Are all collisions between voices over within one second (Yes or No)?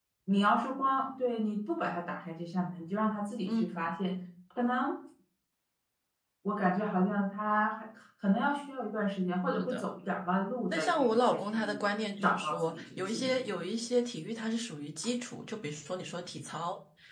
No